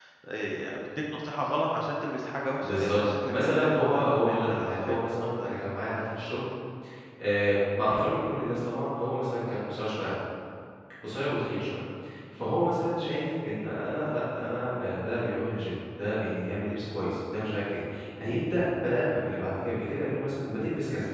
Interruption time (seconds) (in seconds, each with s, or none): 2.6 s